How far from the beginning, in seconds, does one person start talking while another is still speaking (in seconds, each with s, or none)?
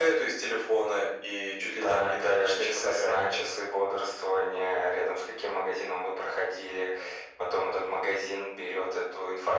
1.7 s